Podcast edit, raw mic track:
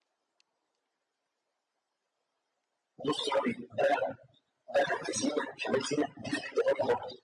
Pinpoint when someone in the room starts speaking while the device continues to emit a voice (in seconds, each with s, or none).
none